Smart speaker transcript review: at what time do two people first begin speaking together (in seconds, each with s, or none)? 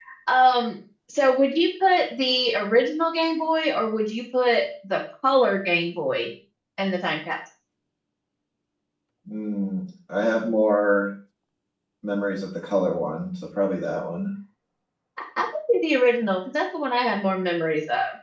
none